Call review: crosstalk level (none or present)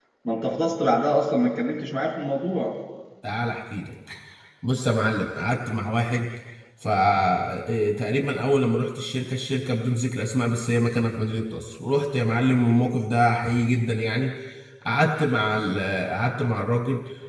none